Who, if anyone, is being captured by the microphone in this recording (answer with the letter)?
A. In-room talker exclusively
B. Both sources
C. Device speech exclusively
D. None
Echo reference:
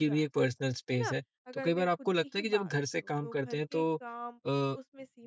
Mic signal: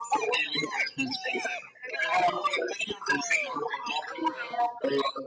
C